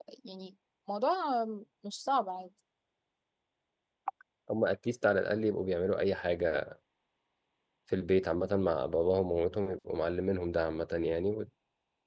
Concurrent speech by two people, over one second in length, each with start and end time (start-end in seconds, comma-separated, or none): none